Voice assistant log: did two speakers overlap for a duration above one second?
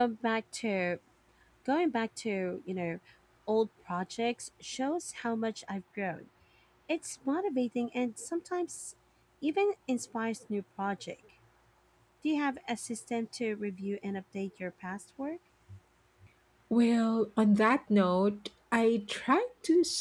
No

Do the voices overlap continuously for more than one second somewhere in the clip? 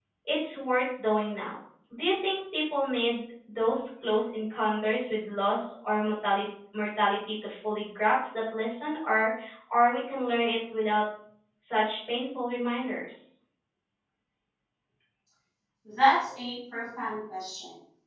No

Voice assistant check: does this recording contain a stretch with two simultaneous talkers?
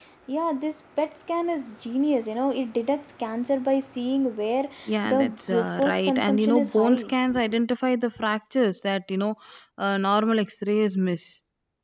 Yes, from 5.0 s

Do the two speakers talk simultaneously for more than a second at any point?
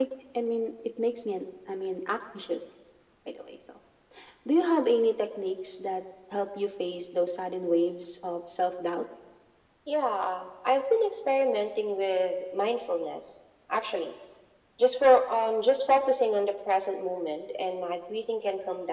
No

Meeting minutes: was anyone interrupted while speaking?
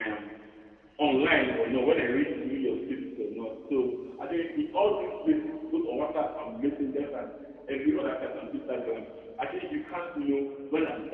No

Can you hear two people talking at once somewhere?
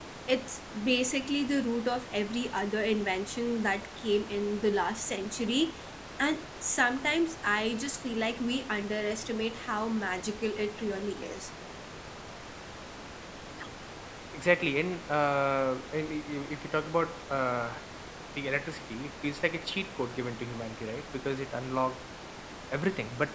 No

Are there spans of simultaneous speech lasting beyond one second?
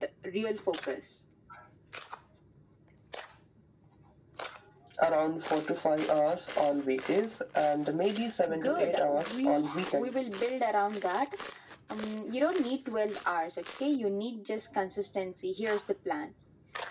Yes, from 8.5 s

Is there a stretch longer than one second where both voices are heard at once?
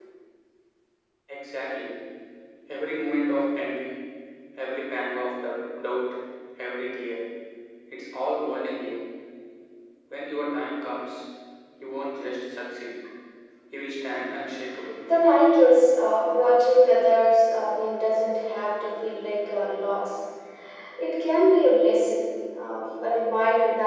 No

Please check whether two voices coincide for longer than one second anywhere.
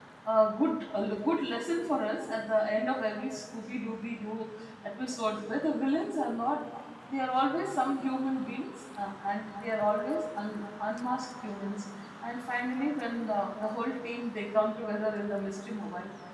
No

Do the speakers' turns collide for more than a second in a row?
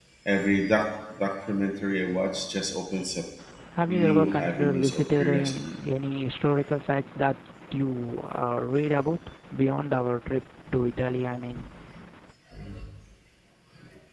Yes, from 3.9 s

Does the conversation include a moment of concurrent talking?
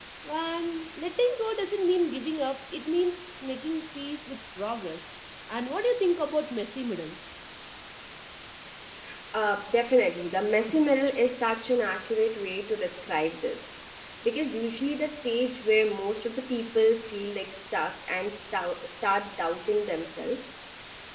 No

